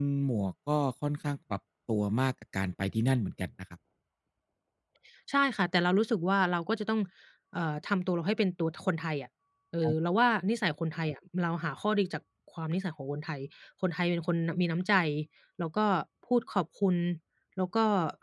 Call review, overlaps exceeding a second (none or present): none